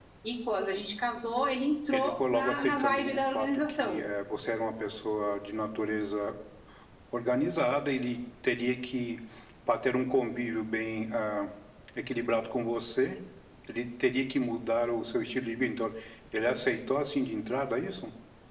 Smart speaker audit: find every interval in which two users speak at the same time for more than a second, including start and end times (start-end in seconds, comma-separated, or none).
1.9-4.0